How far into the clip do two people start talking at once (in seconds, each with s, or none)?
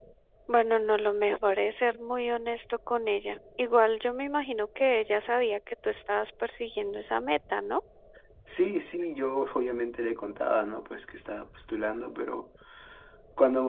none